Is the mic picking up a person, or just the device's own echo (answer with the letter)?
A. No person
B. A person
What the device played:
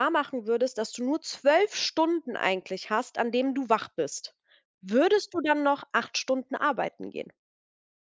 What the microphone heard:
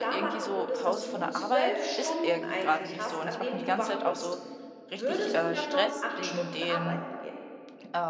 B